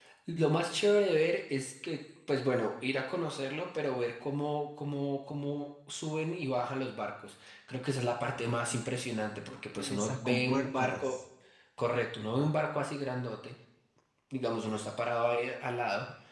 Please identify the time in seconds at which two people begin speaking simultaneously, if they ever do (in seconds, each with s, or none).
9.5 s